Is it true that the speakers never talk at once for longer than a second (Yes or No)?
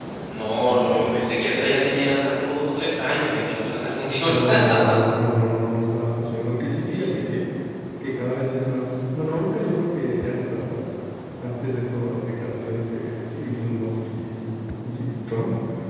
Yes